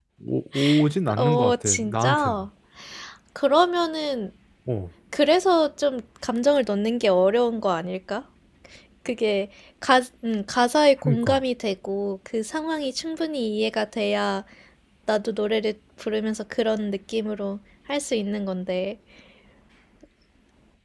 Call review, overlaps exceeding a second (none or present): present